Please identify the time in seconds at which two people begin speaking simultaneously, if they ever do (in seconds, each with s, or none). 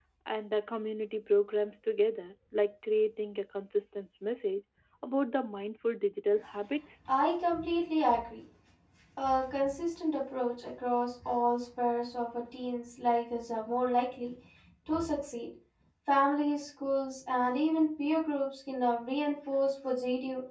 none